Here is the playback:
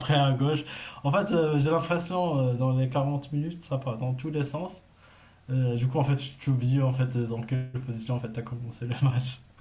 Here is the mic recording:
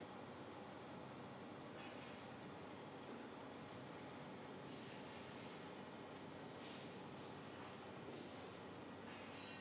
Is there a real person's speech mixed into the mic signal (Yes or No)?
No